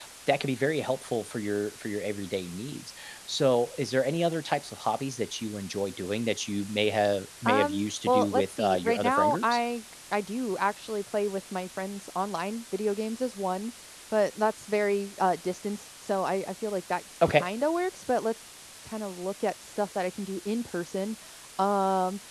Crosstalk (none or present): present